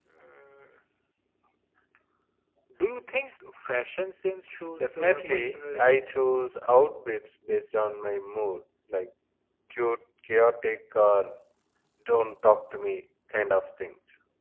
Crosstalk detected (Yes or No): Yes